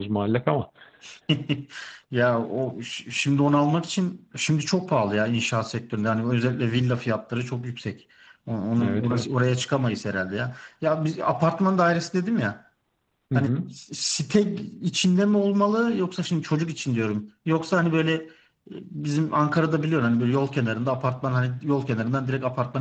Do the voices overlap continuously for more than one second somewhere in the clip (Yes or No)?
No